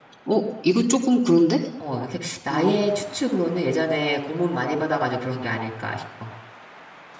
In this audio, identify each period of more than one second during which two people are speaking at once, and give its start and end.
none

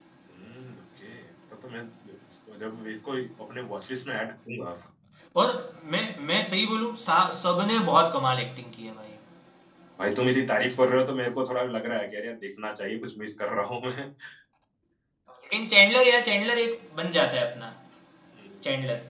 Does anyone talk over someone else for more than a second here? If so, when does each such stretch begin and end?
none

